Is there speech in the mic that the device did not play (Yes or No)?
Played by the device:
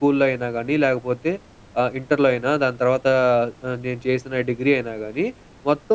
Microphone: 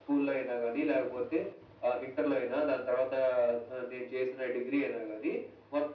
No